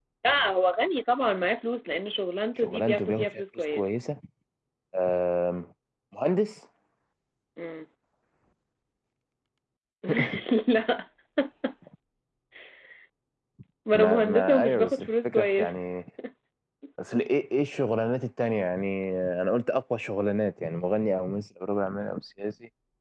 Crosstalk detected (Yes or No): Yes